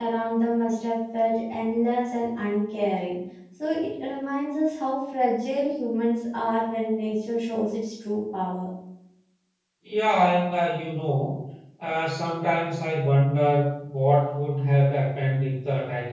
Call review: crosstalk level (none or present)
none